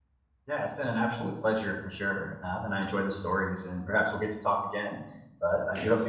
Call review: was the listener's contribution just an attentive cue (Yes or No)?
No